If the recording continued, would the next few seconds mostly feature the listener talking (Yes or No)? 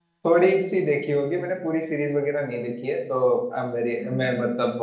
No